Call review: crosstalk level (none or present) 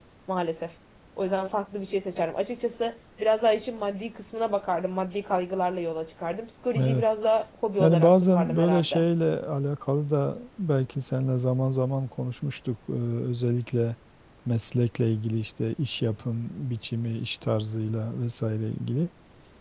present